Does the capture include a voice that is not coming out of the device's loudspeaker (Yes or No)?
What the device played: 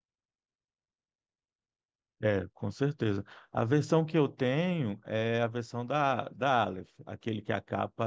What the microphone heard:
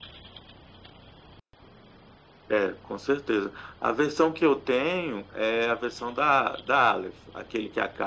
No